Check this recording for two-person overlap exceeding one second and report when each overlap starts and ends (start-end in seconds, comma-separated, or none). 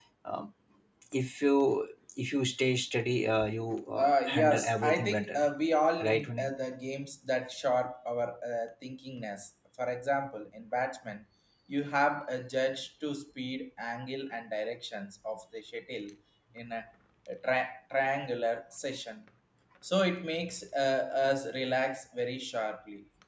4.0-5.4